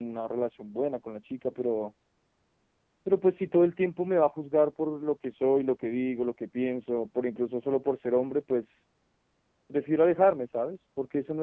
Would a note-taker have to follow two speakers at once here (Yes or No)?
No